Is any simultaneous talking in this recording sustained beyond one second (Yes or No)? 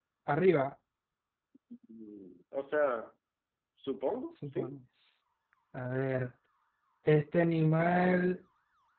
No